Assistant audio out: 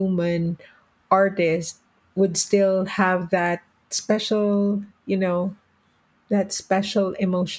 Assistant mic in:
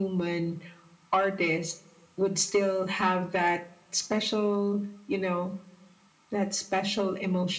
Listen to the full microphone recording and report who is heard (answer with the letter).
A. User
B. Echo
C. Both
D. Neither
B